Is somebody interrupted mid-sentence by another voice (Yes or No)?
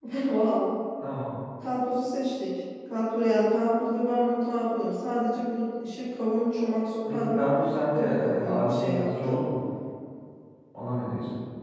Yes